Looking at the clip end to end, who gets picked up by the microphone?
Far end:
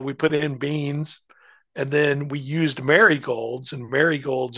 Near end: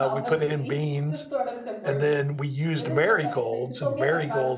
both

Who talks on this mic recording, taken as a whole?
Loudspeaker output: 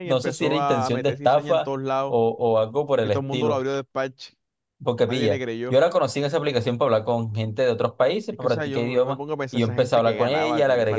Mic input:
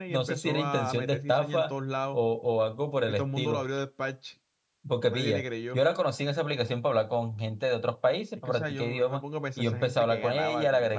echo only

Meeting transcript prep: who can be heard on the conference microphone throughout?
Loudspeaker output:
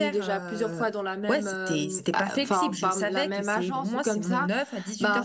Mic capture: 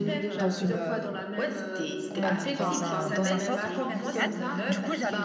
both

